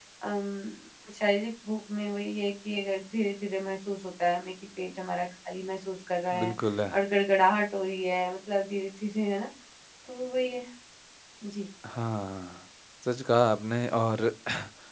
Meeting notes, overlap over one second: none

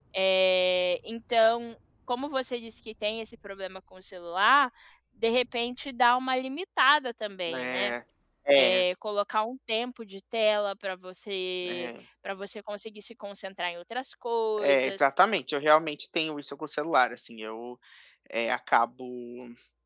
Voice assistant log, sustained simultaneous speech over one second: none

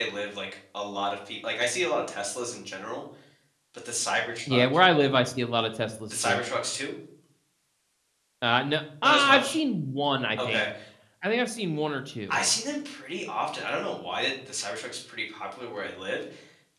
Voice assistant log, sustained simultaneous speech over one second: none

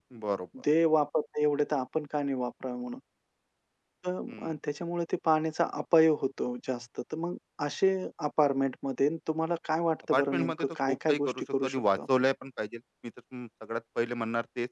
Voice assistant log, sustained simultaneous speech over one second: present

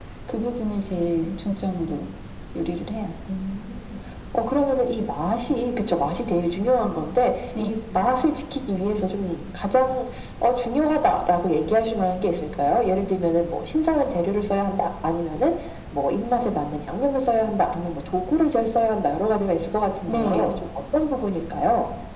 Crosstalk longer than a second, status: none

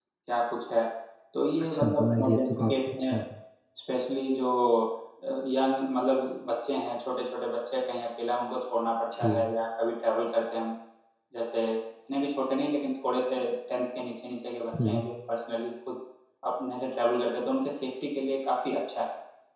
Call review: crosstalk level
present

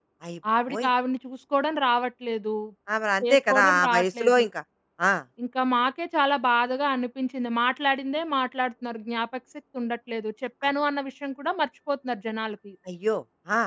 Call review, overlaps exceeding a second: present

